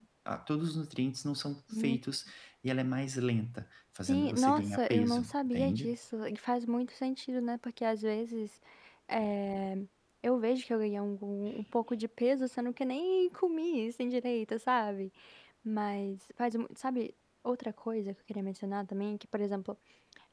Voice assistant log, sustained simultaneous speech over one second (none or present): present